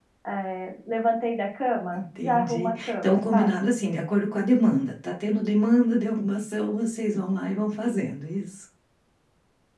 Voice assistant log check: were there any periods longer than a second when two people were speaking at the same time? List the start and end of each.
1.9-3.6

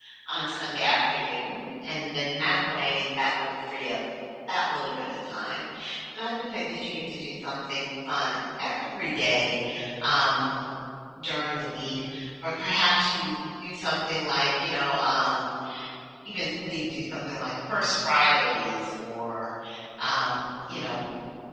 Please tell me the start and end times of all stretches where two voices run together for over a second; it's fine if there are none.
none

